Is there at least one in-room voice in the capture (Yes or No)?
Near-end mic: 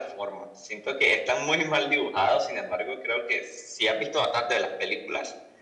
No